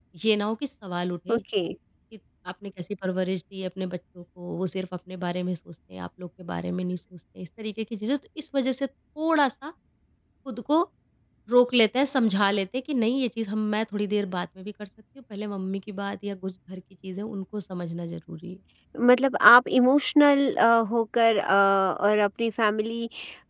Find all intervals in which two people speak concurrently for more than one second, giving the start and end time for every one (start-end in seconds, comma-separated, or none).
none